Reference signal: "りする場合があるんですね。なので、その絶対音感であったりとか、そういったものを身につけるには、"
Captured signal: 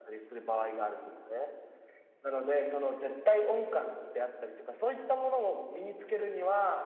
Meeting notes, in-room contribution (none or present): none